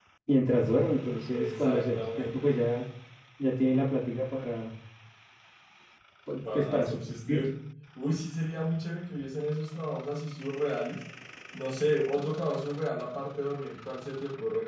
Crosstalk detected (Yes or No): Yes